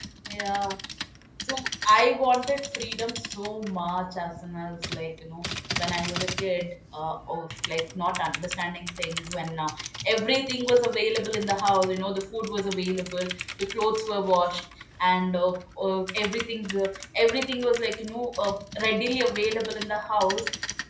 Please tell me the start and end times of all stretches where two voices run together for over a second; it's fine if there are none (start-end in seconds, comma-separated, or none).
none